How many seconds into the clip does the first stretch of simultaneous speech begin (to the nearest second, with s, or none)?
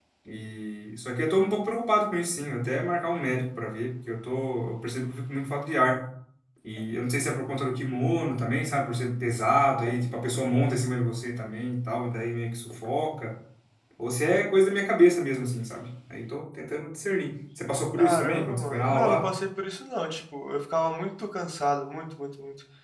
18 s